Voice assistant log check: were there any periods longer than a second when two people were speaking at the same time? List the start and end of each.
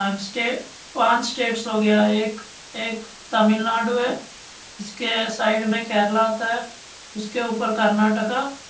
none

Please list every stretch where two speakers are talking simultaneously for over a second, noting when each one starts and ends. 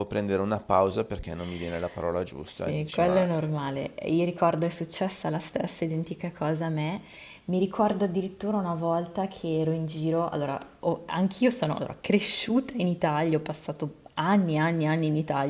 2.7-3.9

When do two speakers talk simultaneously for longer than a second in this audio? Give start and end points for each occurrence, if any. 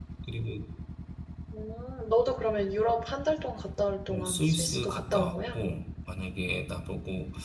4.1-5.6

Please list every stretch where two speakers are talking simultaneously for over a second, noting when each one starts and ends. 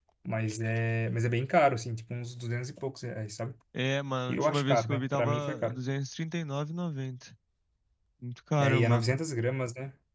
4.3-5.8

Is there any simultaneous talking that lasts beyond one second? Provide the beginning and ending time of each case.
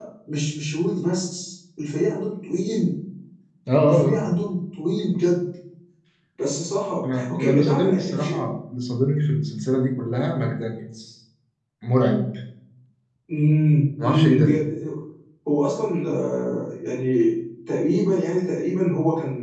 7.0-8.3

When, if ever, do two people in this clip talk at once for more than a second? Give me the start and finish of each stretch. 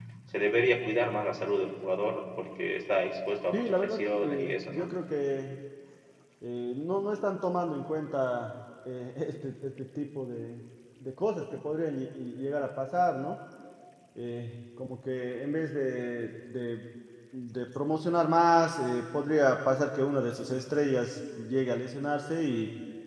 3.5-4.9

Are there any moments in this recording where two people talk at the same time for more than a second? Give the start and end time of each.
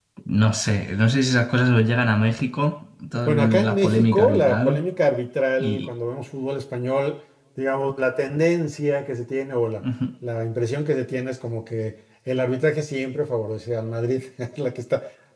3.3-4.8

